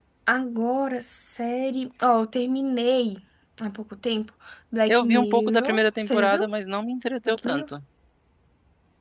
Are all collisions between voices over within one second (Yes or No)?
No